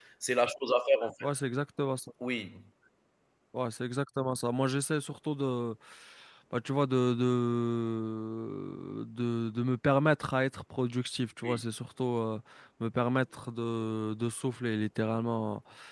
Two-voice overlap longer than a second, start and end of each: none

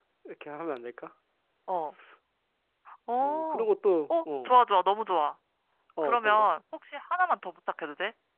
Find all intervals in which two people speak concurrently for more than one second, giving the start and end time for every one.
none

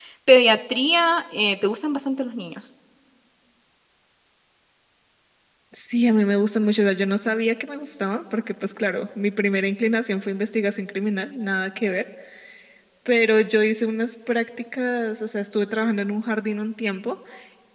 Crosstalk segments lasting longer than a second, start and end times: none

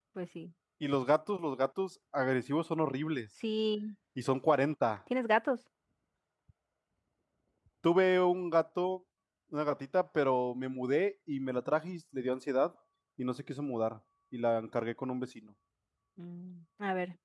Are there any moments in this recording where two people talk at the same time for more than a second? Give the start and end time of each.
none

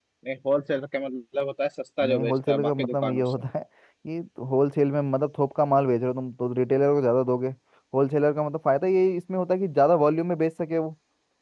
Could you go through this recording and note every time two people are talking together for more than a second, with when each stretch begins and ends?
2.1-3.4

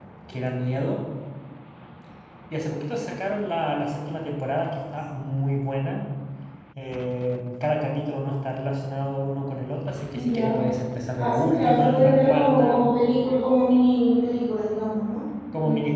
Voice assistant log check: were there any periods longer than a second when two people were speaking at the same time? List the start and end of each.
11.2-12.8

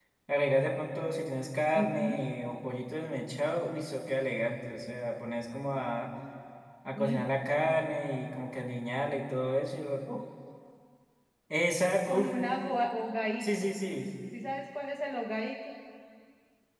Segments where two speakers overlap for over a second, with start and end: none

